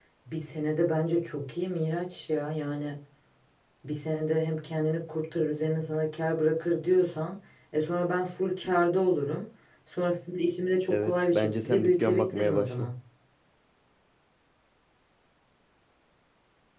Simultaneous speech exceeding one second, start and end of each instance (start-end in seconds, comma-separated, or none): 10.9-12.9